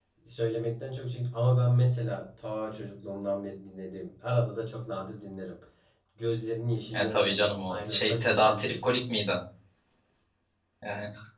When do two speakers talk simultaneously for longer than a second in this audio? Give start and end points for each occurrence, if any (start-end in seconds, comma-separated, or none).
7.0-8.9